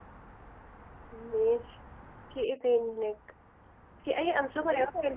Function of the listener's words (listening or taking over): listening